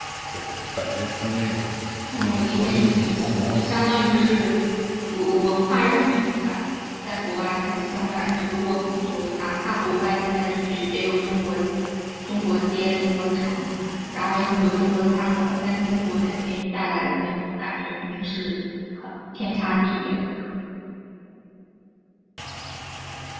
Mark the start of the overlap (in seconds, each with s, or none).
2.1 s